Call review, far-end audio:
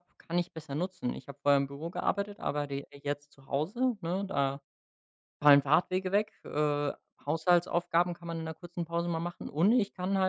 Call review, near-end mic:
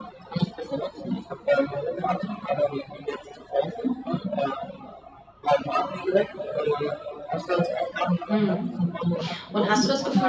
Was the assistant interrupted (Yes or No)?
Yes